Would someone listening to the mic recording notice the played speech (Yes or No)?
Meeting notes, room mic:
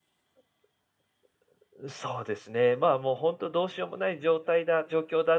No